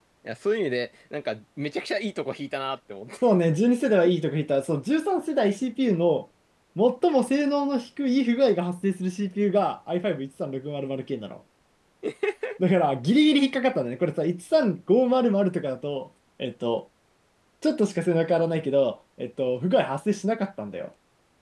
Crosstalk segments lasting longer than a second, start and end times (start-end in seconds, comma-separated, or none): none